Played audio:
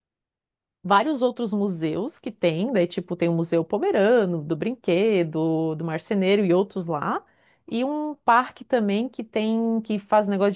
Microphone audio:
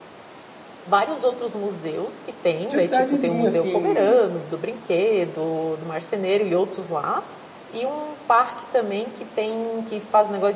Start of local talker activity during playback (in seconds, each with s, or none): 2.6 s